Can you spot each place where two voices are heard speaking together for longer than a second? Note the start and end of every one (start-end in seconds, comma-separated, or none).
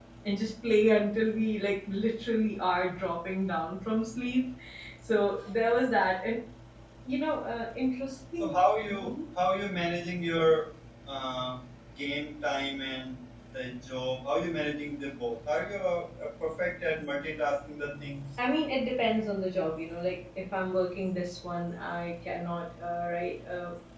none